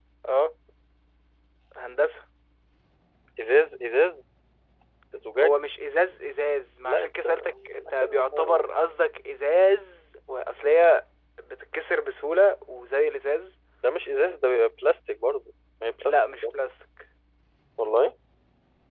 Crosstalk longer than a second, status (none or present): present